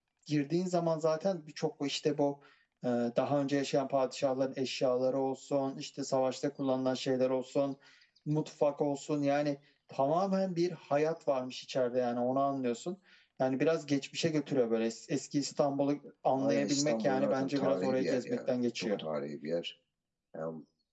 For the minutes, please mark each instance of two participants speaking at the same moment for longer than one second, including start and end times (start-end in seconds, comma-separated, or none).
16.4-18.9